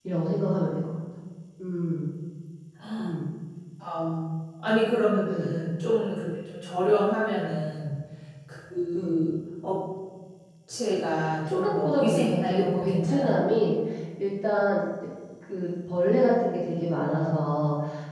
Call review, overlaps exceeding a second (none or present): present